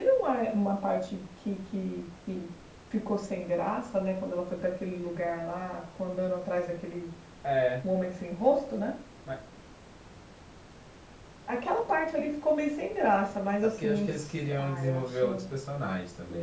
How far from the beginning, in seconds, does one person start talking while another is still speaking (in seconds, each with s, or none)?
13.8 s